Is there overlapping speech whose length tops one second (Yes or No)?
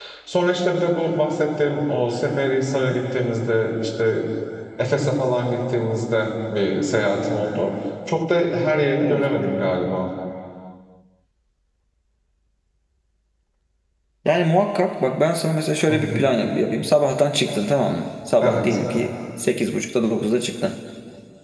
No